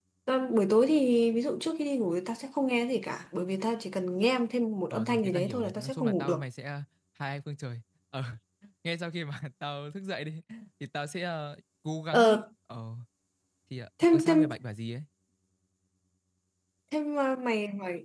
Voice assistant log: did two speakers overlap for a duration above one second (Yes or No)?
Yes